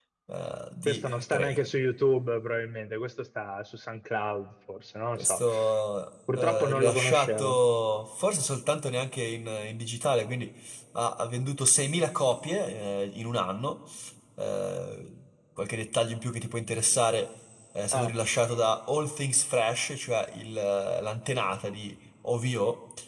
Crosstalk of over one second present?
Yes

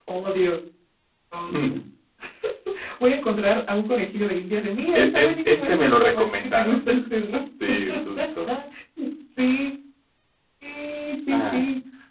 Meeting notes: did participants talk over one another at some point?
Yes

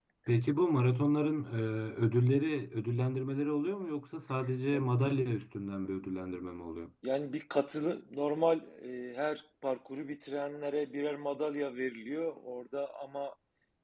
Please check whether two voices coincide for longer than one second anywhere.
No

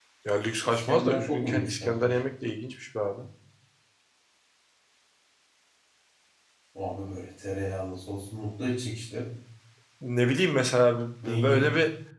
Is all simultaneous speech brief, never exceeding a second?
No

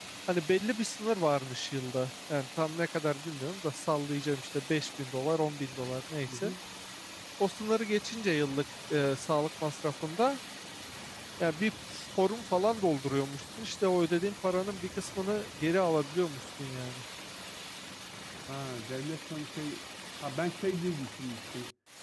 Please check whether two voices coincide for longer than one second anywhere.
No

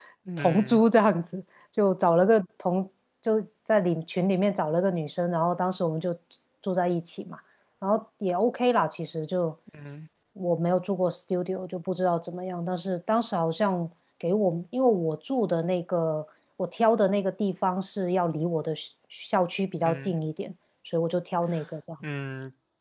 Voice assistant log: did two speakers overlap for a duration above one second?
No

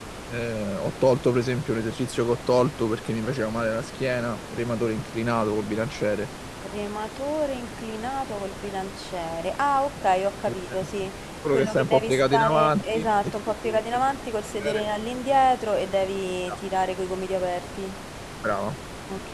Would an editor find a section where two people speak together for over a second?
Yes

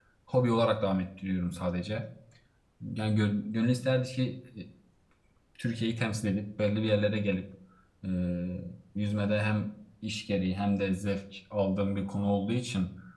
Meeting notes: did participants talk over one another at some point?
No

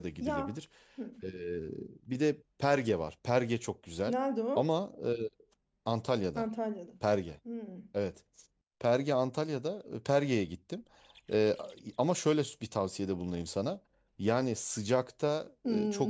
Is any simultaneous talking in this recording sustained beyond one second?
No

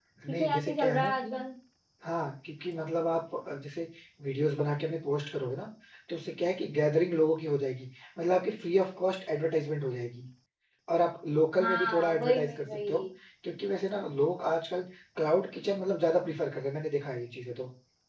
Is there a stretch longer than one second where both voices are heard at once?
Yes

